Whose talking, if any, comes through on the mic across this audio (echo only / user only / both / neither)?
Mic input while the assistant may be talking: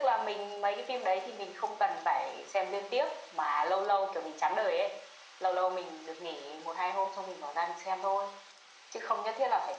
echo only